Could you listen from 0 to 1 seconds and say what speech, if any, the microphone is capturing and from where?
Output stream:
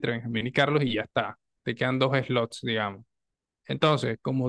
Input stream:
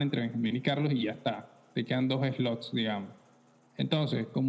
echo only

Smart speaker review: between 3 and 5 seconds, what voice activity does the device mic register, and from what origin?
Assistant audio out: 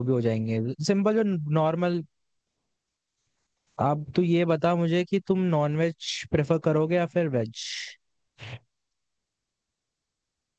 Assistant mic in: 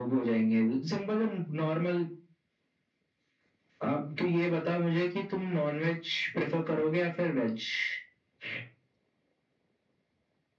echo only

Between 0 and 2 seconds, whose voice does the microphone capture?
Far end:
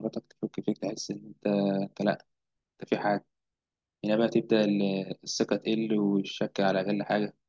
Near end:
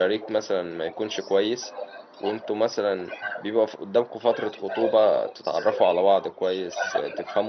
both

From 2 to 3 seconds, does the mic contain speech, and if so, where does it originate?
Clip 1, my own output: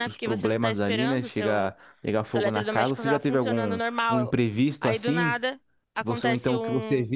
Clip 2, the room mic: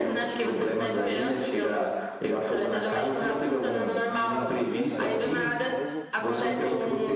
echo only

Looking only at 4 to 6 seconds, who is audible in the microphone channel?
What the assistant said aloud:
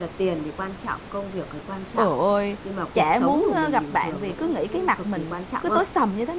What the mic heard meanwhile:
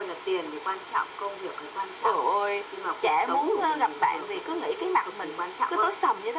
echo only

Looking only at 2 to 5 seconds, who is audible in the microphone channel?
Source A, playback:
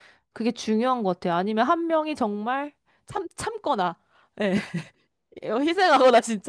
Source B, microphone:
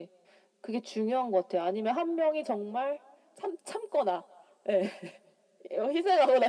echo only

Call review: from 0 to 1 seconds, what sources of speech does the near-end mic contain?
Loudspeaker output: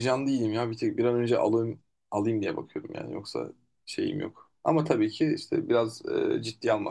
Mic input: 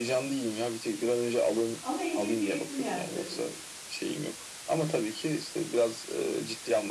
echo only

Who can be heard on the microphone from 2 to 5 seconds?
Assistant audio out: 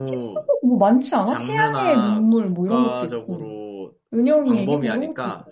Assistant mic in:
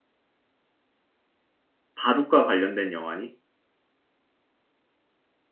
user only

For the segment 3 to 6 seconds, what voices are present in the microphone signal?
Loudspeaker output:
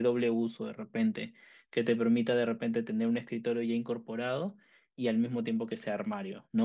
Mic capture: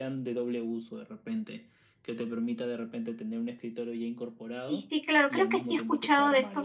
both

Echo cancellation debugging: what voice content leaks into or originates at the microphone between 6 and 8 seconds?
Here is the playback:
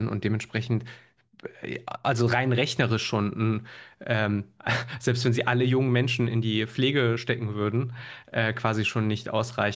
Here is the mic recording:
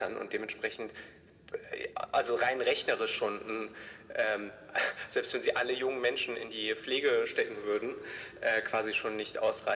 echo only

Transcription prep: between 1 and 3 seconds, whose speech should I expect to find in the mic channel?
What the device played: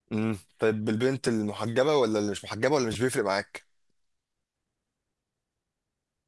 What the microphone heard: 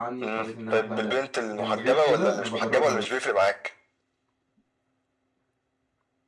both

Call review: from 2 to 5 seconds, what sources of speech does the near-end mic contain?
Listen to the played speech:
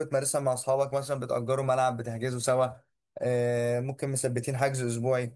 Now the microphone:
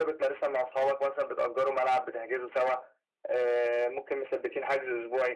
echo only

